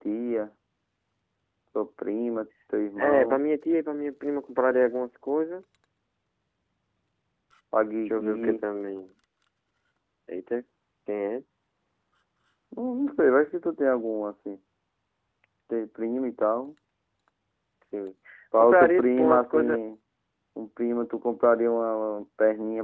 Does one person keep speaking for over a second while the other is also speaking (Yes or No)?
Yes